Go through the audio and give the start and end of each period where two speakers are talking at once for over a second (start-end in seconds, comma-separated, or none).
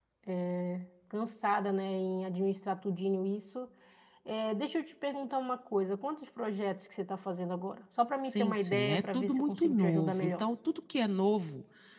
8.2-10.4